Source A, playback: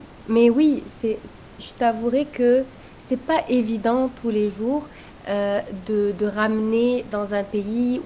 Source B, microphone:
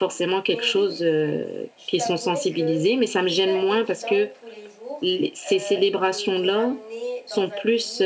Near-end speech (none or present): present